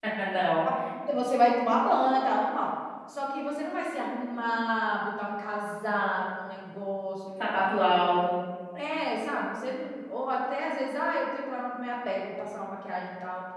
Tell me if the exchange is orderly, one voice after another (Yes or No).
Yes